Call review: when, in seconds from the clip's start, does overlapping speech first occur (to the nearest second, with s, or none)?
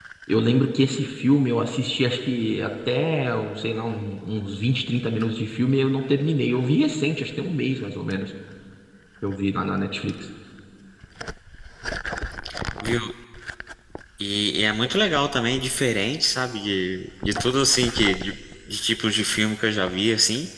none